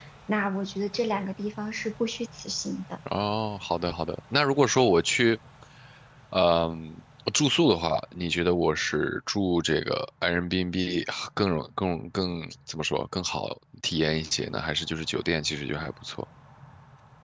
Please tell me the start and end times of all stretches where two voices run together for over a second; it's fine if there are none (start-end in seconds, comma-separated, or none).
none